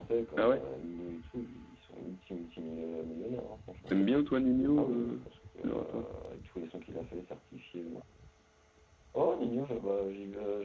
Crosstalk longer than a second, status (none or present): none